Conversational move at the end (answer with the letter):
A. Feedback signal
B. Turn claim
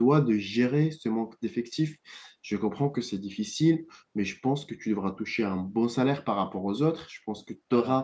A